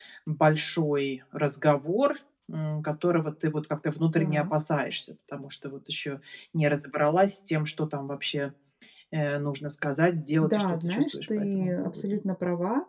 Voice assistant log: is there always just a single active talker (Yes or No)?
No